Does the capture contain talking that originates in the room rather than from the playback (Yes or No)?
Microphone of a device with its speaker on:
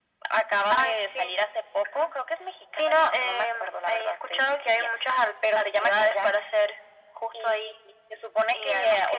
No